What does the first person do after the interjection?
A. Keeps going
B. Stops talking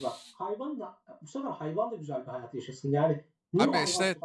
B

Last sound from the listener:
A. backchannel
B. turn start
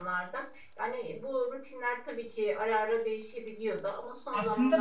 B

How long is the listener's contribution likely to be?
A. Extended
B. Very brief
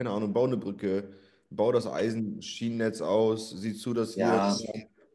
B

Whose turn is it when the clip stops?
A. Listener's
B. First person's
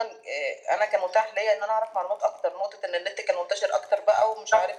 A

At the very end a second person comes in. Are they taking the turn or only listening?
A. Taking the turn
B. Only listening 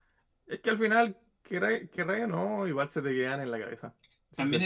A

